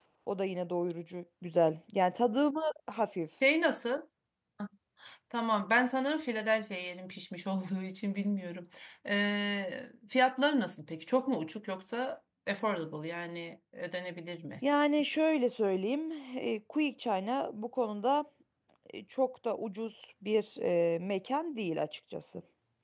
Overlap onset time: none

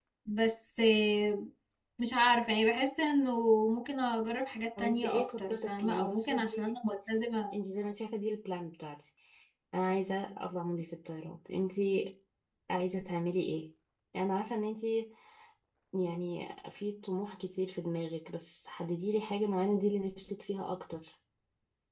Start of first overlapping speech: 5 s

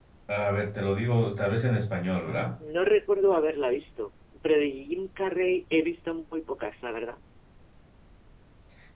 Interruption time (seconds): none

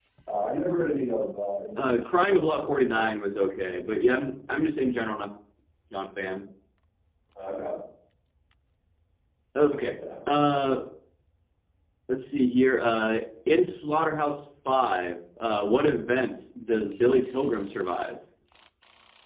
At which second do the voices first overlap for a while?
2 s

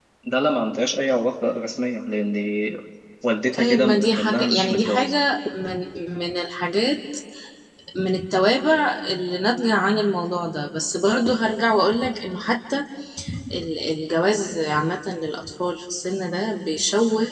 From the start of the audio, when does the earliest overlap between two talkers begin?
4 s

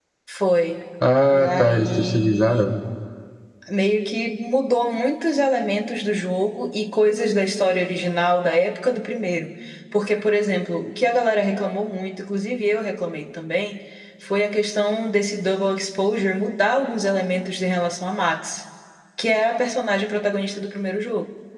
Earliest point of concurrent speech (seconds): 1 s

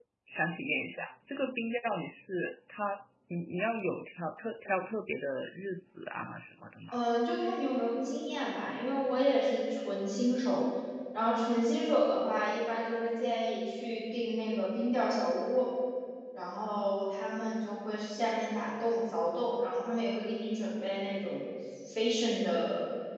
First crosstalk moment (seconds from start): none

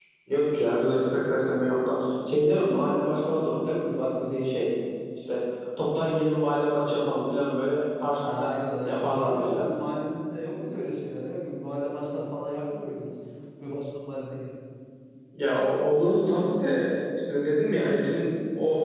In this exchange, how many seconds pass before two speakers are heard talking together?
8 s

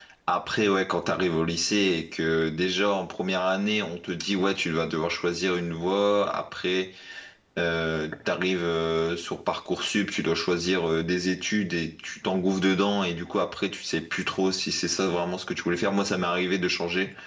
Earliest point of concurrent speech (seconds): none

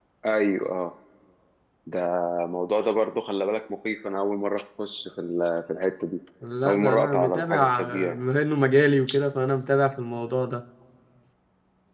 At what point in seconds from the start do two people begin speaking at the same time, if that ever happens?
7 s

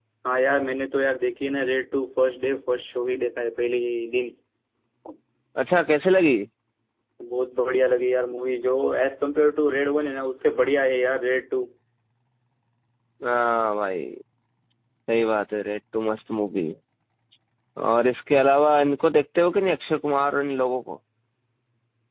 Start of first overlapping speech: none

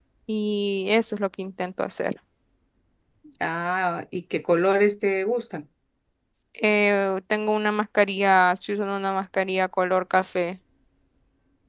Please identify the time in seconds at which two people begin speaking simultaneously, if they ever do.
none

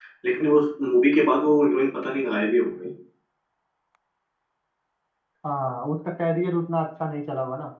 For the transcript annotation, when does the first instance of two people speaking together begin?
none

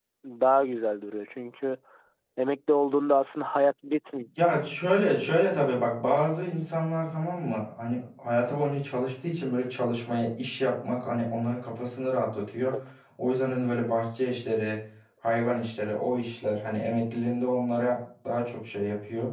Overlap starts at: none

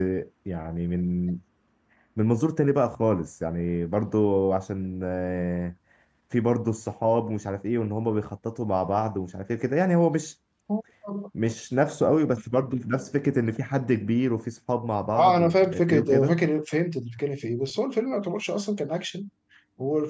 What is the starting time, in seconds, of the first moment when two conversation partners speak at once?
15 s

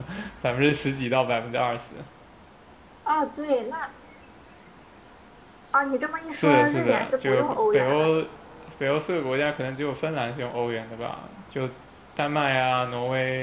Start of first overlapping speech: 6 s

